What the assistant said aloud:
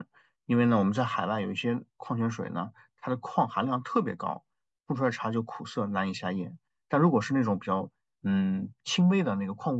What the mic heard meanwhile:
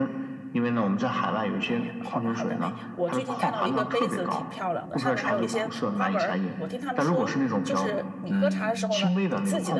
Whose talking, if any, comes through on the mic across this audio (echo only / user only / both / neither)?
both